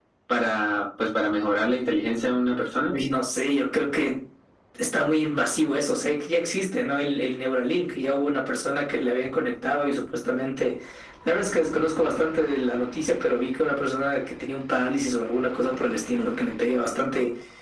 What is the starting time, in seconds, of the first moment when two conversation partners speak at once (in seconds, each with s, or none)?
none